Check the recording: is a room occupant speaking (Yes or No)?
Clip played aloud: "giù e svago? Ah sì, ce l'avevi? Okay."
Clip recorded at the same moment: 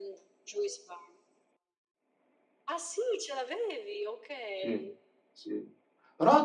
Yes